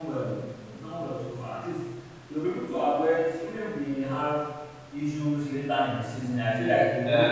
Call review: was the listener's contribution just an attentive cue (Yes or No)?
No